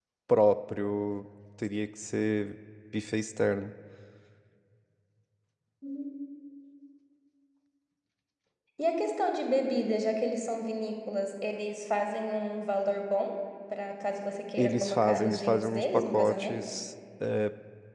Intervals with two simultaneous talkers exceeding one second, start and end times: 14.6-16.7

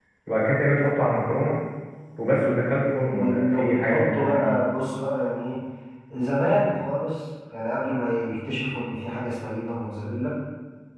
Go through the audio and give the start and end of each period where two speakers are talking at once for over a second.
3.1-4.5

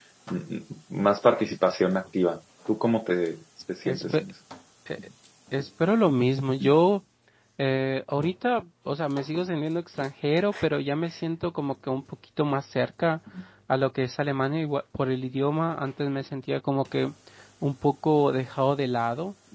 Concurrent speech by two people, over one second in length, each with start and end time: none

